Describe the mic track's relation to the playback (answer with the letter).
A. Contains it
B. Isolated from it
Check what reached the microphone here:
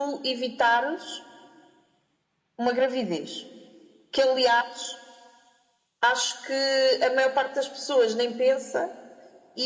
A